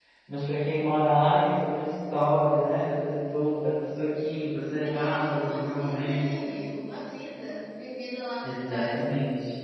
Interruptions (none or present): present